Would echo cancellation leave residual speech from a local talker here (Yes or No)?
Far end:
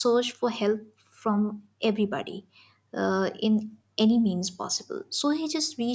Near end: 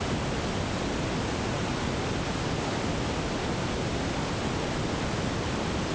No